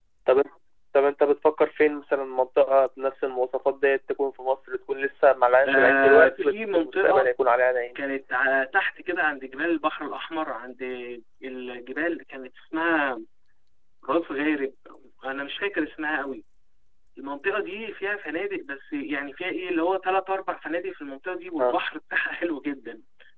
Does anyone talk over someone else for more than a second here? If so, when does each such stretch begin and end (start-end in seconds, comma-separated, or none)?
5.7-7.3